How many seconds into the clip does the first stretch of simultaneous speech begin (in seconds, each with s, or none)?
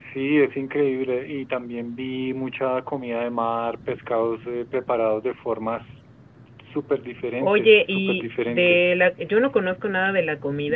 7.4 s